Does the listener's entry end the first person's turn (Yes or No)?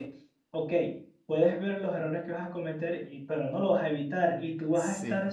No